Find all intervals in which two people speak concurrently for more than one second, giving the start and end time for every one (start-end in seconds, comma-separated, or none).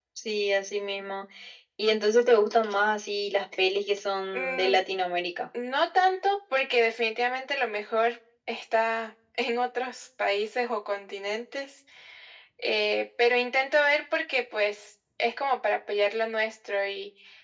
none